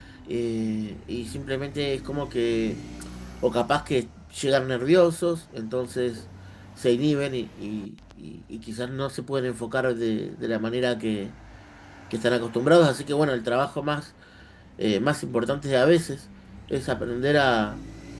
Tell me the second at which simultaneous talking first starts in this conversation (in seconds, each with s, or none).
none